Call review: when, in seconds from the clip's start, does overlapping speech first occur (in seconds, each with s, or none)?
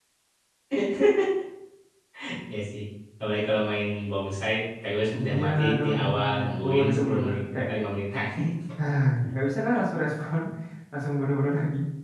5.2 s